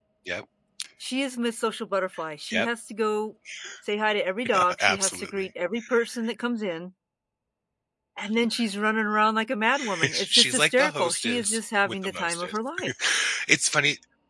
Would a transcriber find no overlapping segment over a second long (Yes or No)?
No